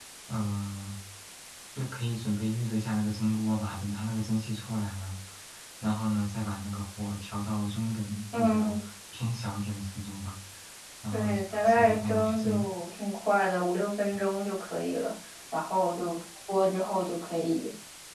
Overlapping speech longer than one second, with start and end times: 11.1-12.7

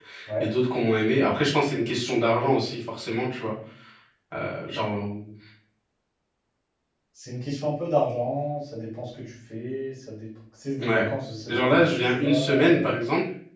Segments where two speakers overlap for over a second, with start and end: 11.5-13.0

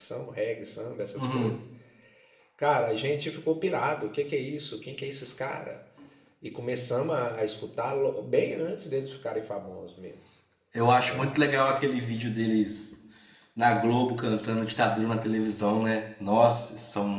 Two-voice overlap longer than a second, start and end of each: none

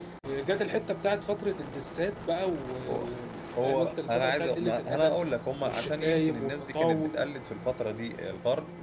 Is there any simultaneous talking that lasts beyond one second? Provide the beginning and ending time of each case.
3.6-5.1, 5.7-7.2

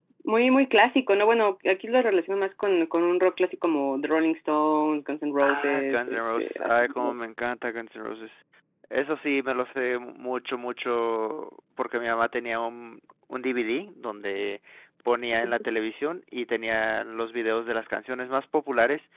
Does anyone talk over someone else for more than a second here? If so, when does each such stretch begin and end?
5.4-7.1

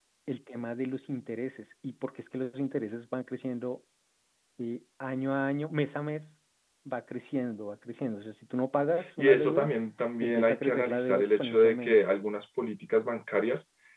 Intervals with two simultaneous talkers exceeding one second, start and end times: 10.2-12.0

